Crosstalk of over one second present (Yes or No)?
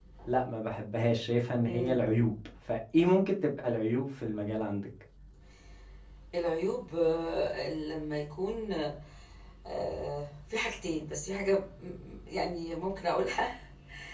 No